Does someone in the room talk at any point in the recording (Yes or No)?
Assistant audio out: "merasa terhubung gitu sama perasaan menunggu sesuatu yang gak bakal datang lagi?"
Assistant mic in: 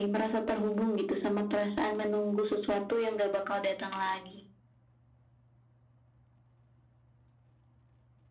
No